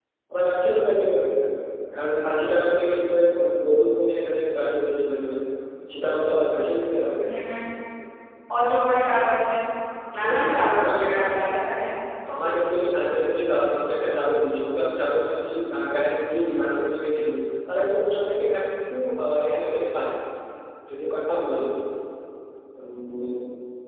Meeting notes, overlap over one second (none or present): present